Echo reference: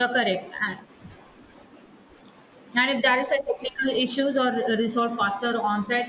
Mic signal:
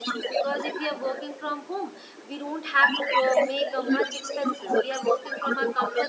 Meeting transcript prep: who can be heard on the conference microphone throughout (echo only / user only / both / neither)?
both